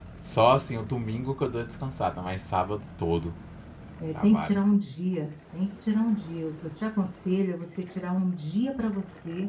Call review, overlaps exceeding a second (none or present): none